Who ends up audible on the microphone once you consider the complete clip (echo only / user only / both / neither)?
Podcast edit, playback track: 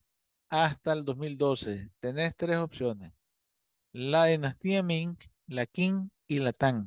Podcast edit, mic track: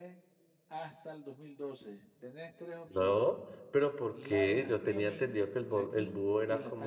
both